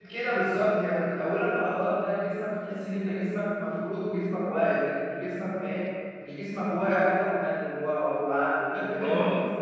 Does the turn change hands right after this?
No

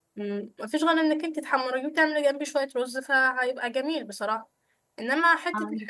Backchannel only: Yes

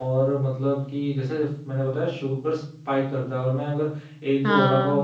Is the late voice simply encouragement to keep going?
Yes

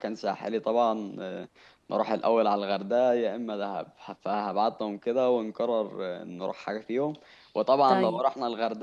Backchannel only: Yes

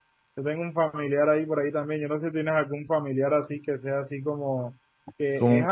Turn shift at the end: No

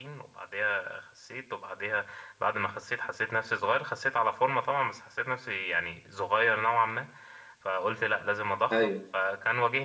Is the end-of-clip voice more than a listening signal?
No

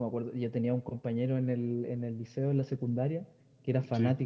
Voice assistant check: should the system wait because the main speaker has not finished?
Yes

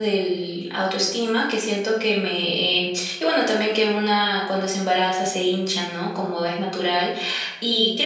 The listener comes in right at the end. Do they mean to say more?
No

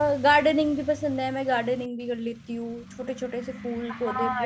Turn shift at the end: Yes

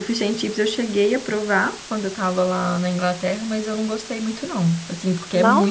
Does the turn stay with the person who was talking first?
Yes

